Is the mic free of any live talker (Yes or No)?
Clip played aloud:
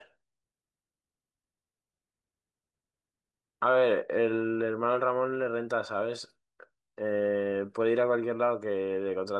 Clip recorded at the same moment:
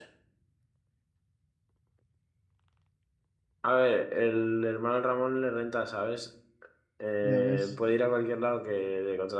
No